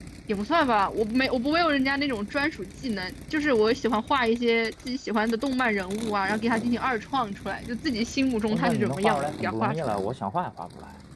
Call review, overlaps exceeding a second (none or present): present